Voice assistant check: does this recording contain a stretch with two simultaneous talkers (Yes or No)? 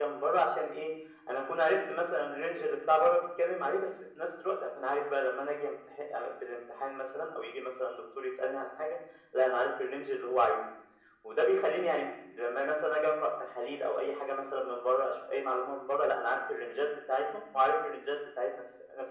No